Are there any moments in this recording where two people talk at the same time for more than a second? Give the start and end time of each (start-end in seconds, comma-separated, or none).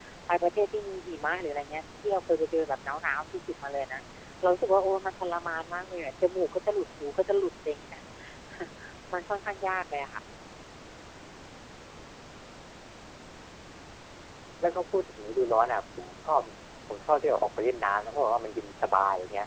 none